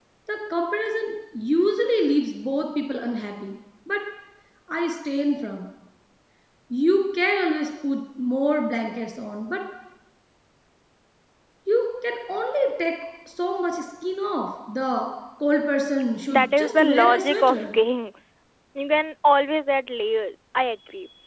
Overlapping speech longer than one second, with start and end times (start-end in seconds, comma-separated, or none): 16.3-17.8